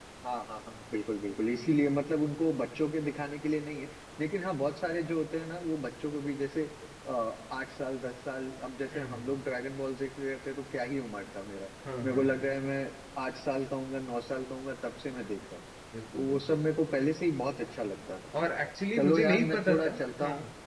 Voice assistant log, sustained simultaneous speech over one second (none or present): present